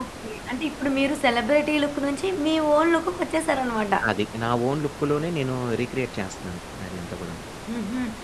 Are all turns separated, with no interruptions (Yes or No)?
Yes